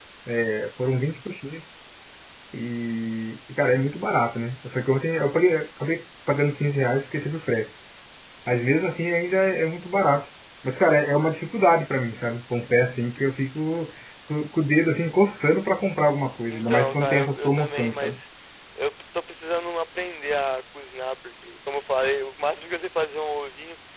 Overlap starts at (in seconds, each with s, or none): 16.5 s